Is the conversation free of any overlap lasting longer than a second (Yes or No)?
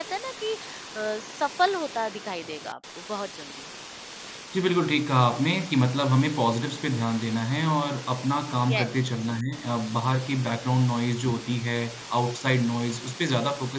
Yes